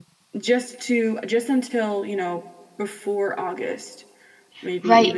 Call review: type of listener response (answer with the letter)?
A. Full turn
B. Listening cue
A